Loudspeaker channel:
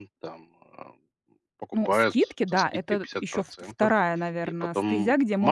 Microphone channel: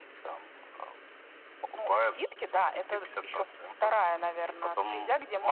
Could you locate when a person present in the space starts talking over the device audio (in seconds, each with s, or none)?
none